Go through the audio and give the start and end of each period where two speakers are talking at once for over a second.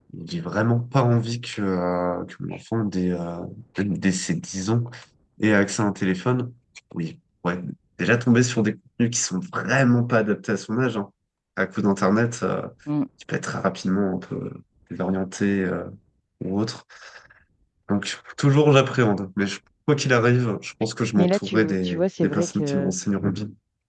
21.2-22.9

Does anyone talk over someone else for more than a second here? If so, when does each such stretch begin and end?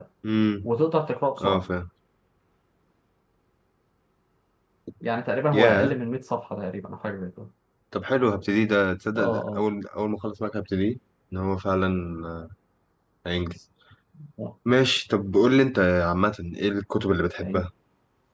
none

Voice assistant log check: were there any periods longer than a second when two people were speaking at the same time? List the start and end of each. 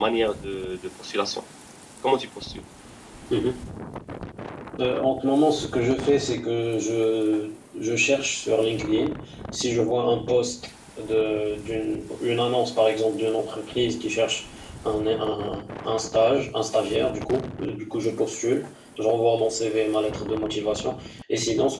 none

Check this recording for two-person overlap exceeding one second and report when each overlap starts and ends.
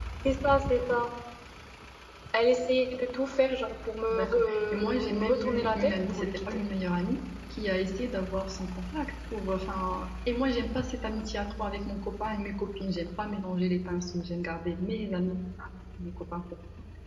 4.1-6.6

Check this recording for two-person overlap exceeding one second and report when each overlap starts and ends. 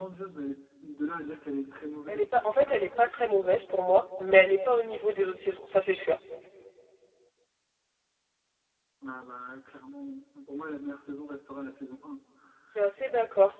2.1-3.4

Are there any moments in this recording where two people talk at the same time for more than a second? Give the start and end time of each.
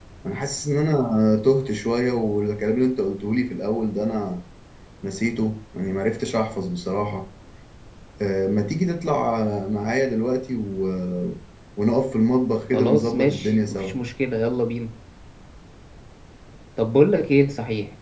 12.7-13.9

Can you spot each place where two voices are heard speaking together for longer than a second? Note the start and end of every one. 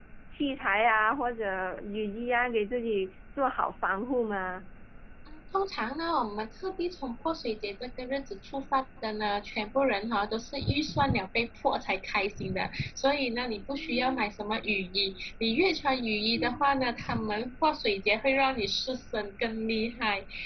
none

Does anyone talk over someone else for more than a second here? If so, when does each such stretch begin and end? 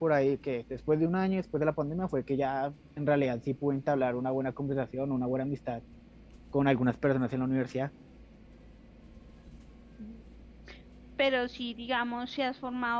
none

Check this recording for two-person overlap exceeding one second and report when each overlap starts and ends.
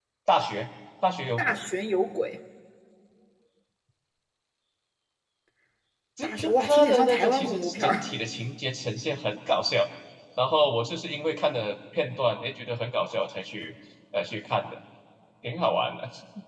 6.2-8.1

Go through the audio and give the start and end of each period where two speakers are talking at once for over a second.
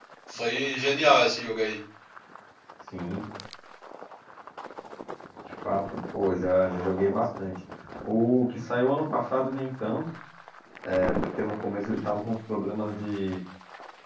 none

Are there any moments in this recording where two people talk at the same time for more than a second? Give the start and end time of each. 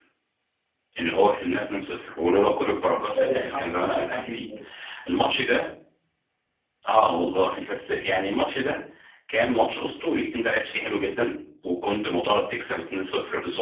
2.9-4.4

